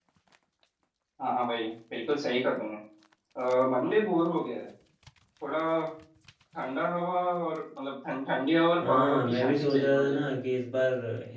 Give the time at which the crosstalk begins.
9 s

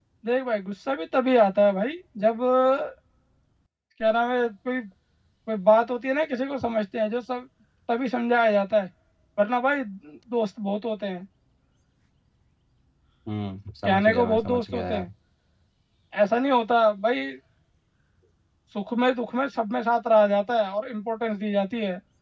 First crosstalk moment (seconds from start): 14 s

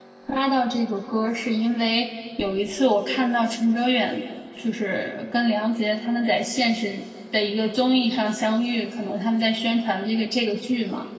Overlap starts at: none

